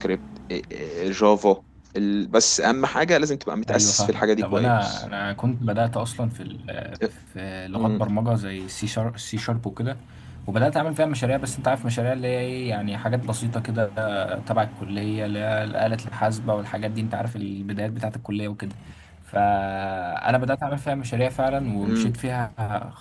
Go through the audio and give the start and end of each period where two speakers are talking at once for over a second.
3.6-5.0

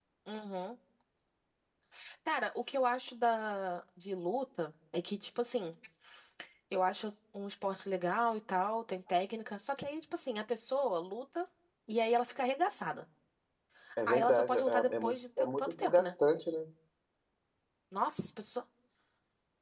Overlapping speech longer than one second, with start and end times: 14.1-16.1

